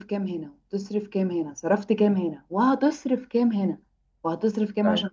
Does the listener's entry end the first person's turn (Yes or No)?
No